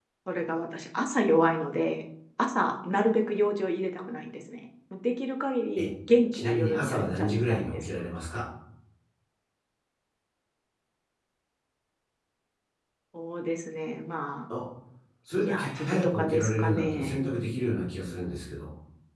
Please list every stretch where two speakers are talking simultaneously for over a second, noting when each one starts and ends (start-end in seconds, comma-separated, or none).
6.3-8.1, 15.4-17.2